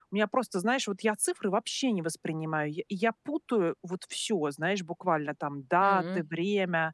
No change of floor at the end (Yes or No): Yes